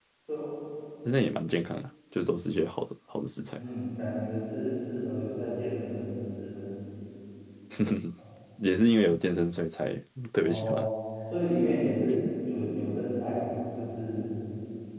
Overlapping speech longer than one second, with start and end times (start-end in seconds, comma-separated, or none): none